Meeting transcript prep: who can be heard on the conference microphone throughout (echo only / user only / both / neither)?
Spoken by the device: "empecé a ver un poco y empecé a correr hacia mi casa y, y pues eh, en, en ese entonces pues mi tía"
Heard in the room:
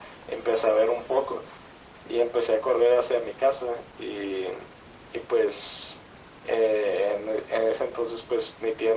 echo only